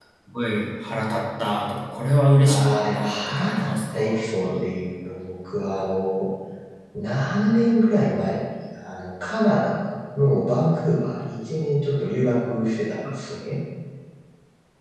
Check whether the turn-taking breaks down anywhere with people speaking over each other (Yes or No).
Yes